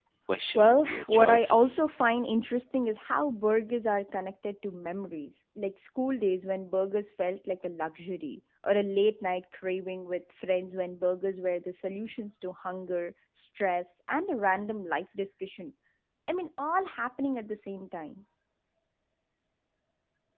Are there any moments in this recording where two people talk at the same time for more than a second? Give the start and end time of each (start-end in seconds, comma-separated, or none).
0.6-1.8